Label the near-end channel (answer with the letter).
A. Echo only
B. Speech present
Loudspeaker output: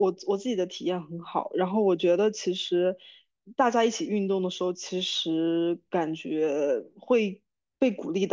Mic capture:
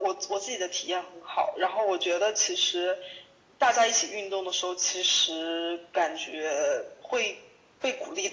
A